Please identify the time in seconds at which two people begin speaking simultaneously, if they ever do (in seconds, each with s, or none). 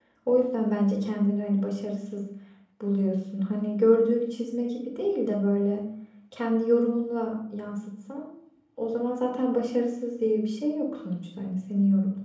none